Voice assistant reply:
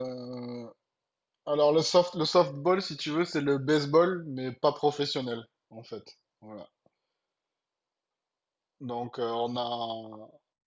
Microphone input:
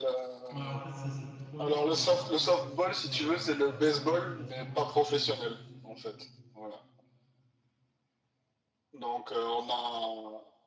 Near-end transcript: ouais, en fait, c'est c'est trop long et après, je pense que tu perds, euh, tu perds même la motivation en fait, au bout de,

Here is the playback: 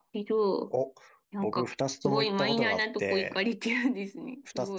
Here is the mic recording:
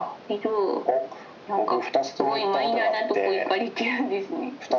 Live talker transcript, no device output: none

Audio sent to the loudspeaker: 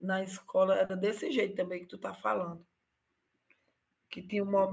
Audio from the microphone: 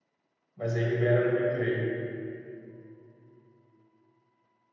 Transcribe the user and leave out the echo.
mas aí libera no recreio.

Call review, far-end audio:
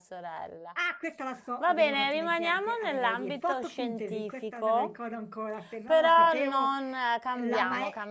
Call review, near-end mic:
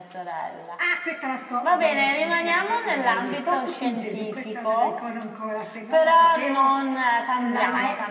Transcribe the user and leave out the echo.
none

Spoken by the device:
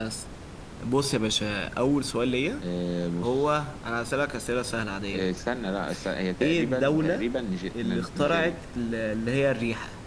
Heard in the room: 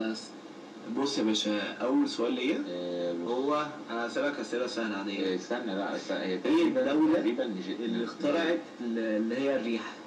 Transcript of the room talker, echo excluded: none

